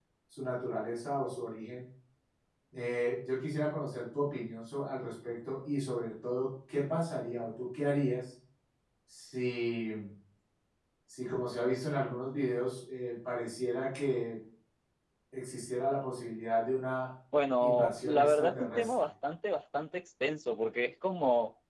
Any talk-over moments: Yes, from 17.6 s

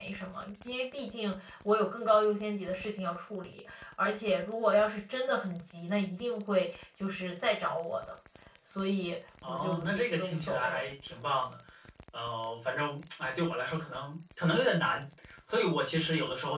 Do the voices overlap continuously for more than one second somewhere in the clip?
Yes, from 9.5 s

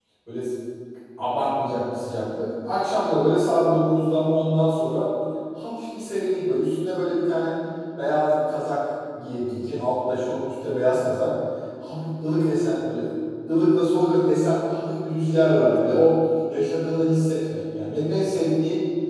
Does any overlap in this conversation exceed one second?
No

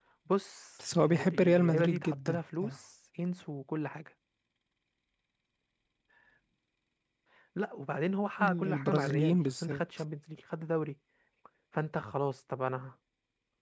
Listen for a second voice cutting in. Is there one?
Yes, from 1.0 s

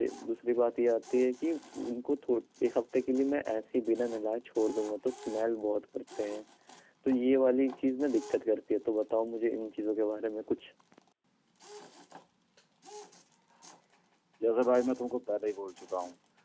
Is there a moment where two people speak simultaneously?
No

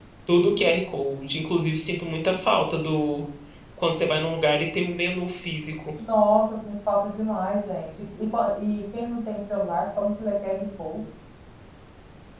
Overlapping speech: No

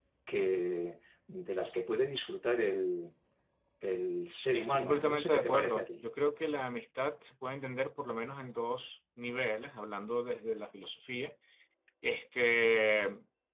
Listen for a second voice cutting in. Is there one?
Yes, from 4.5 s

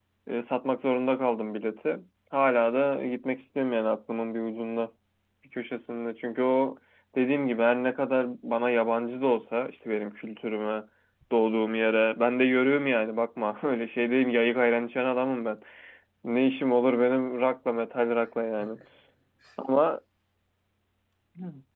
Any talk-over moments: No

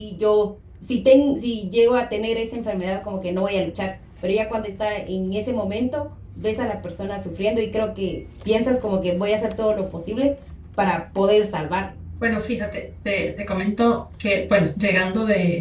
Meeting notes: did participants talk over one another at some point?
No

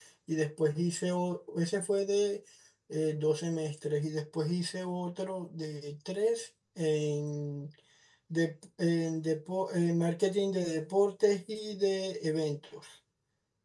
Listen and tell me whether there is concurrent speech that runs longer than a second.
No

